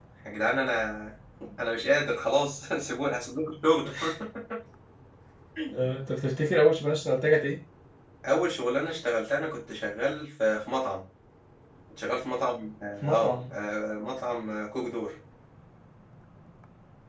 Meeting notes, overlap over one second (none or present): none